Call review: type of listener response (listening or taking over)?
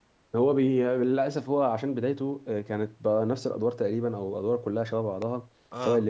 listening